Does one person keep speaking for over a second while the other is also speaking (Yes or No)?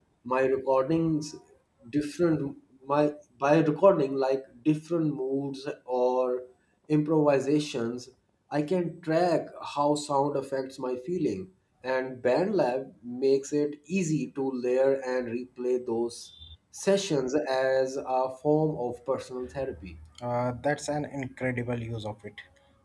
No